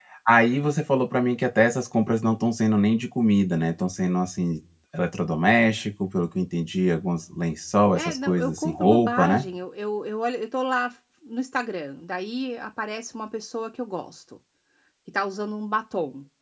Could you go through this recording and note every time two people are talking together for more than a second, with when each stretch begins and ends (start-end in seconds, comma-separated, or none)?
8.0-9.4